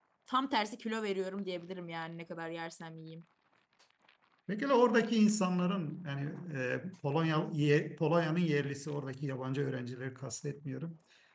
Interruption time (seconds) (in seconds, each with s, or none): none